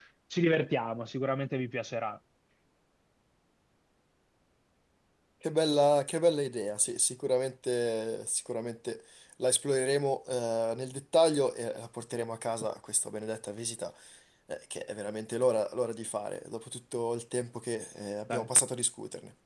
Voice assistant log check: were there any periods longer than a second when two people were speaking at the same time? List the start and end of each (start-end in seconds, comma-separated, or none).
none